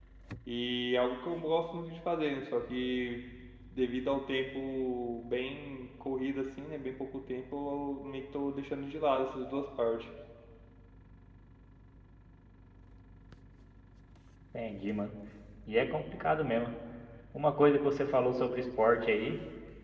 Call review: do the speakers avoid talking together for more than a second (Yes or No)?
Yes